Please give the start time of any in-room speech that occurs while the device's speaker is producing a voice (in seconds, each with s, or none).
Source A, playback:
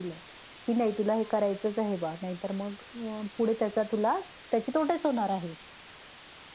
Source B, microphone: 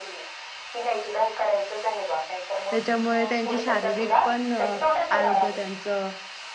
2.7 s